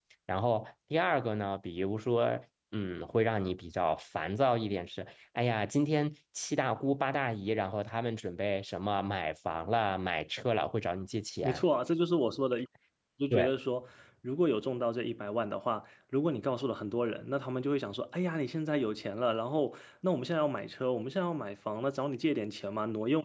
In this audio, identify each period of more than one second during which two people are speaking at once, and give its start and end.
none

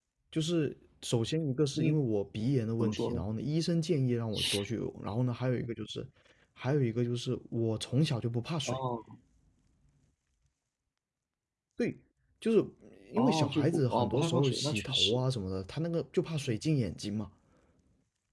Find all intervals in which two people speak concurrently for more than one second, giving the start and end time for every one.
13.2-15.2

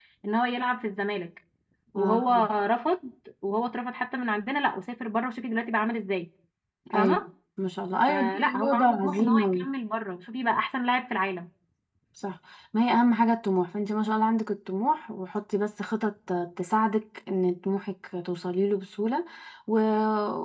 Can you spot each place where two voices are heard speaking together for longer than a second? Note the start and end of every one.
8.1-9.7

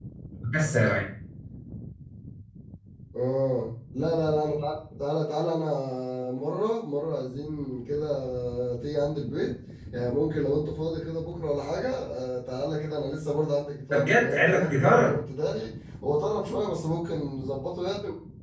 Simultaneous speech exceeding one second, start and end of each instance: 13.9-15.2

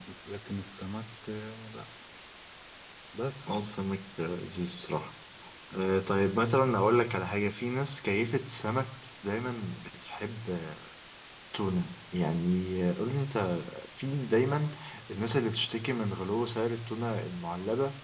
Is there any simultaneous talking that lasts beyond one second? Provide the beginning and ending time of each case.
none

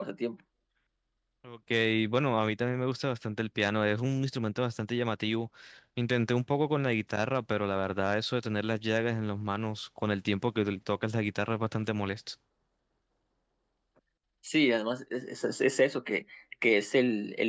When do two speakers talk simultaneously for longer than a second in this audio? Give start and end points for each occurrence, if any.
none

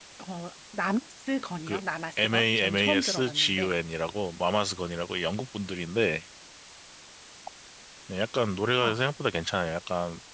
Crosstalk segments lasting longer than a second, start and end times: 2.2-3.7

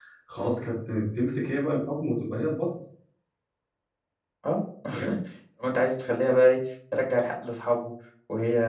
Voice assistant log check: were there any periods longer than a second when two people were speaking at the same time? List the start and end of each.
none

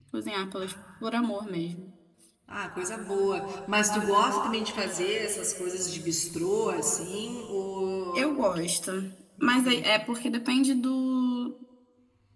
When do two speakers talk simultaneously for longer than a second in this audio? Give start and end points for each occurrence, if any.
none

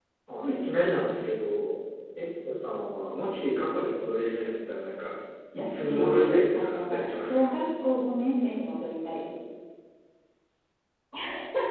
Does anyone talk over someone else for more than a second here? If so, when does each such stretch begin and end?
5.6-7.5

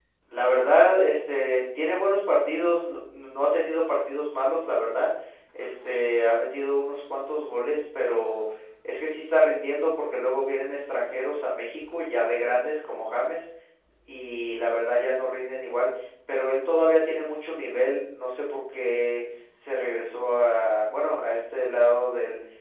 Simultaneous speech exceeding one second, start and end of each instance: none

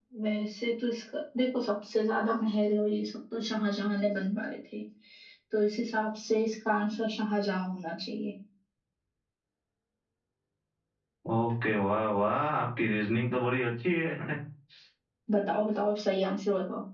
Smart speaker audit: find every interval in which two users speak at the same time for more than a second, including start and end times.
none

